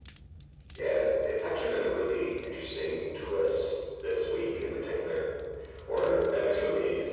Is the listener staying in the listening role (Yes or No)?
Yes